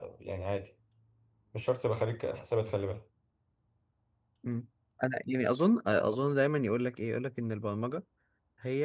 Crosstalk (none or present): none